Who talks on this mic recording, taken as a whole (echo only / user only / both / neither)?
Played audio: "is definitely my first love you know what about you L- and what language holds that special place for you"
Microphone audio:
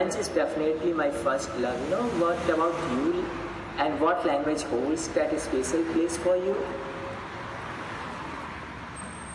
echo only